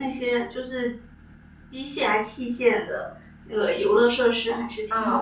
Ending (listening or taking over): taking over